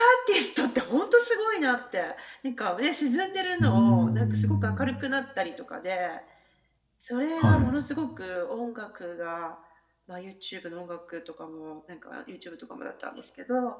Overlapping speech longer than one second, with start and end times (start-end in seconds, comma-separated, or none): 3.6-4.9